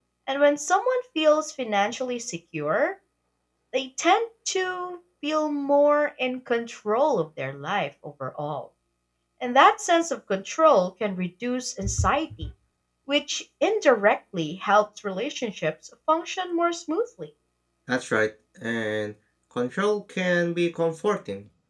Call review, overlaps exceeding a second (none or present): none